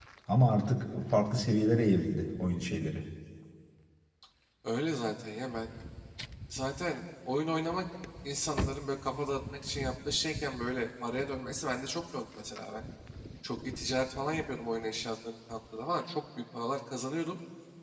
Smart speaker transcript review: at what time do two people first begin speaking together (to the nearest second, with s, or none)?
none